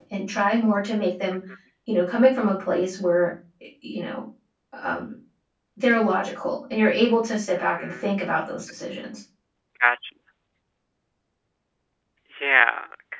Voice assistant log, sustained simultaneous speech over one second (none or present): none